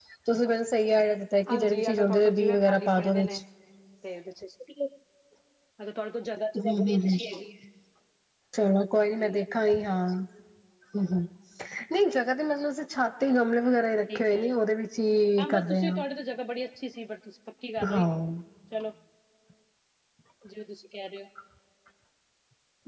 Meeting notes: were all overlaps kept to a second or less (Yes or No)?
No